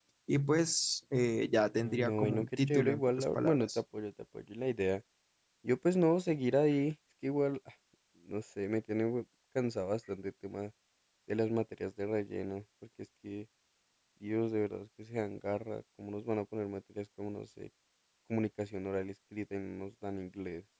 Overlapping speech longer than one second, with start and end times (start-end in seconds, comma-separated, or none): 1.7-3.8